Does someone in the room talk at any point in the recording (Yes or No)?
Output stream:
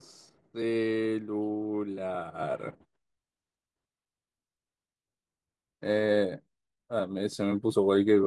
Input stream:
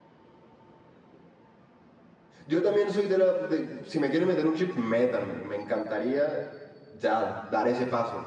Yes